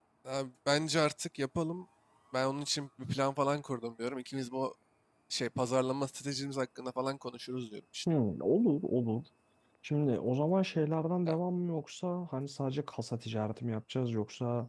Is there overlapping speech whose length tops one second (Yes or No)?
No